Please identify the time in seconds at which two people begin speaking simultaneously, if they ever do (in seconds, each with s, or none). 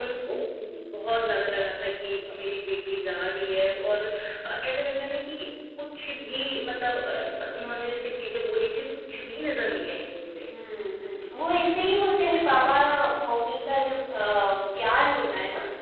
none